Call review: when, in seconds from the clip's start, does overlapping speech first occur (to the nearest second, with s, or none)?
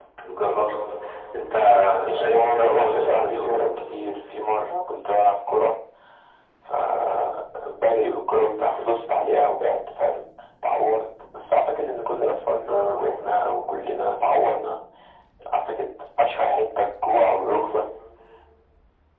2 s